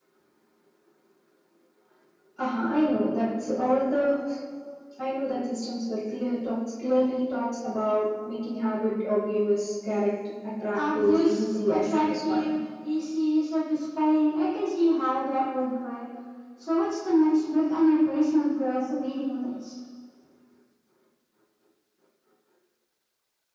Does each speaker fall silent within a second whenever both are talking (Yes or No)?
No